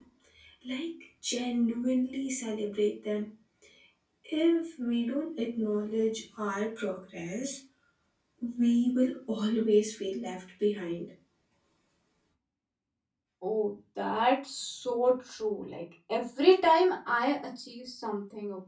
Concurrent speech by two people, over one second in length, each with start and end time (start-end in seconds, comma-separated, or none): none